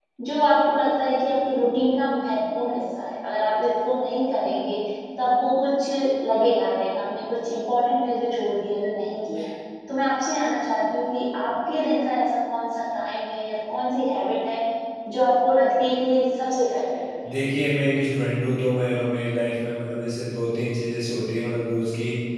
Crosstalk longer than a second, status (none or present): none